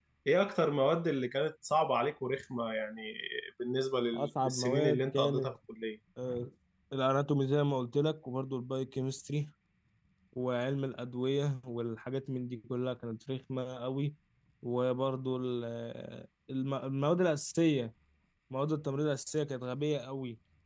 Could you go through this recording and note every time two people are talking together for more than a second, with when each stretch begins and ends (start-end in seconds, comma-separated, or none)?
4.1-5.5